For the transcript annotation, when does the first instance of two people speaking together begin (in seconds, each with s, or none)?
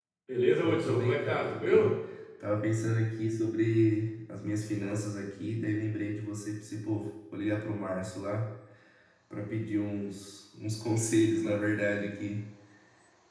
0.6 s